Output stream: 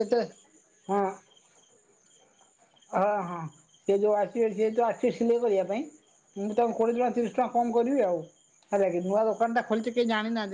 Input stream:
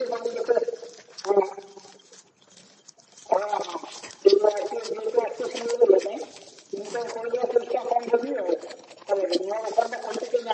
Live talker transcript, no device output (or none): none